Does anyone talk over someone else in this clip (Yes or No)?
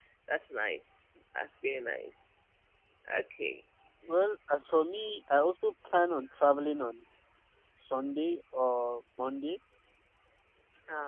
No